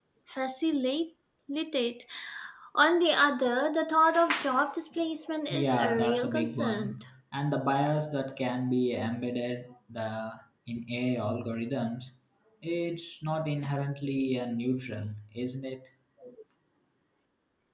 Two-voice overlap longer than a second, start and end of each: 5.5-7.0

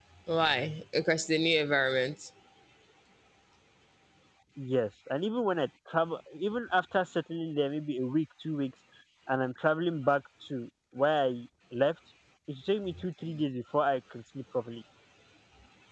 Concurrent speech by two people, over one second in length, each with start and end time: none

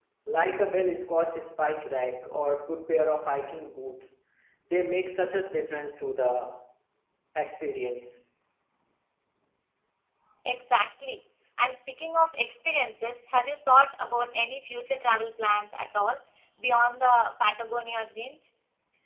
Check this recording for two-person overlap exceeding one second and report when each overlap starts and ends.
none

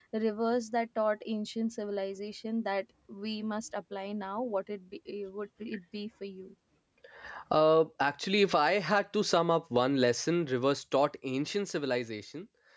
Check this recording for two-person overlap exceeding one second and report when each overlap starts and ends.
none

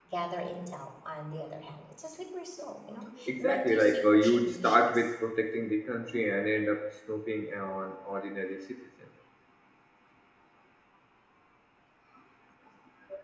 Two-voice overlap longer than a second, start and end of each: 3.3-5.0

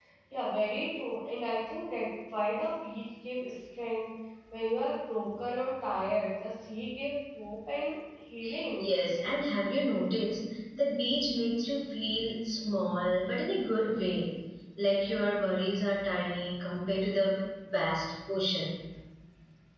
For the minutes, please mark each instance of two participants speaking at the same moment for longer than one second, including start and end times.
none

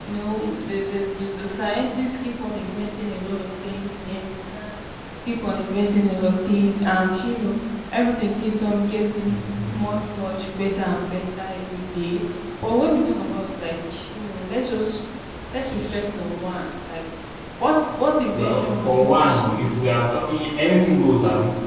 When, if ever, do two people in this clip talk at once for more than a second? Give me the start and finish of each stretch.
18.3-20.0

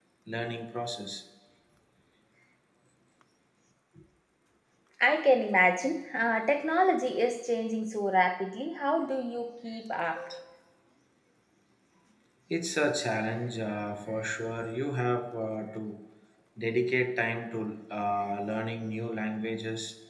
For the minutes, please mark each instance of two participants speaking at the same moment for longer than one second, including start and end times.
none

